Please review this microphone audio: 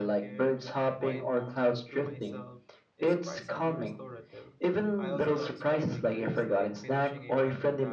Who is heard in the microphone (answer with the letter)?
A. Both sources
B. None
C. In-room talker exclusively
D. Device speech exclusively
A